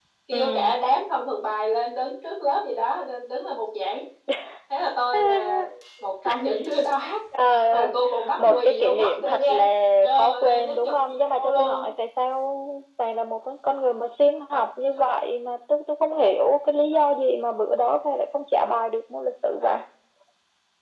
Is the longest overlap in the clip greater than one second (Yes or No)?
Yes